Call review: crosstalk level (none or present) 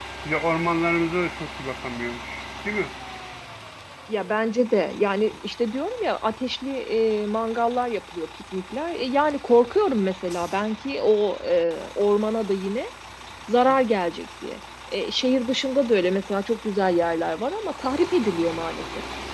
none